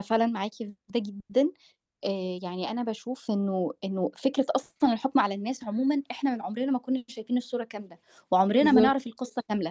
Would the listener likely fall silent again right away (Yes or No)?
Yes